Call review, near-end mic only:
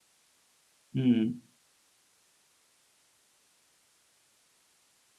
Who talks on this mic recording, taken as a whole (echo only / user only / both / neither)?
user only